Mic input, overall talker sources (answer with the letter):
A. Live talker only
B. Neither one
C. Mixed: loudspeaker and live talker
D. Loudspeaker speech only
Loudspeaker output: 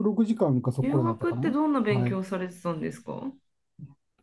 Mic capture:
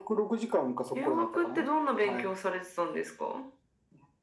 D